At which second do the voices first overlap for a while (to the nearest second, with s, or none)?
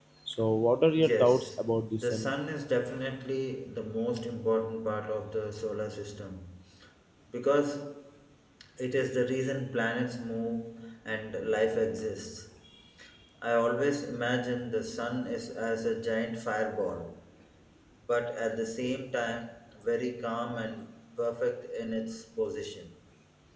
1 s